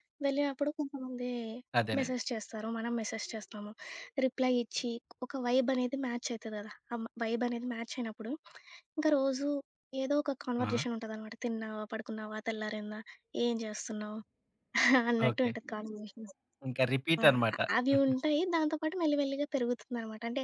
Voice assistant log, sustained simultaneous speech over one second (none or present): none